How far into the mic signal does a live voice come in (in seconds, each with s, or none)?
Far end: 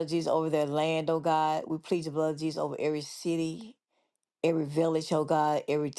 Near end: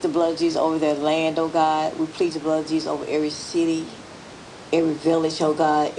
none